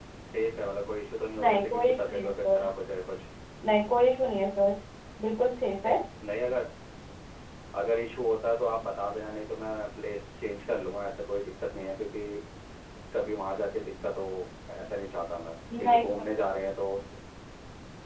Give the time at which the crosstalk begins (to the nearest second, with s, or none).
1 s